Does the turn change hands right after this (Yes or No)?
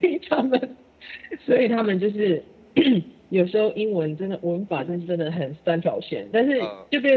No